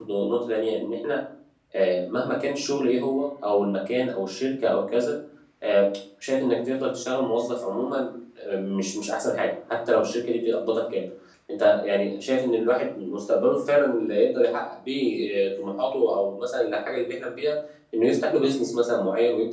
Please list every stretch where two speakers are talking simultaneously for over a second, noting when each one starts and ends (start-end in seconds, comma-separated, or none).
none